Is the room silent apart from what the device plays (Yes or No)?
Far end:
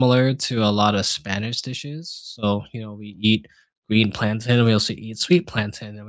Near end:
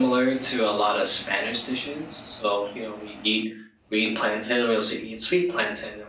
Yes